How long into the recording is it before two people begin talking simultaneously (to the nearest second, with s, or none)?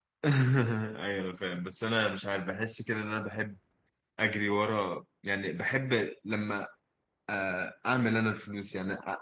none